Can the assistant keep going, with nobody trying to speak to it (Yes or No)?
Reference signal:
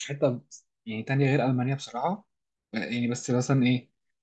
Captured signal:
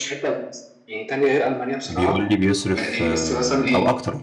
No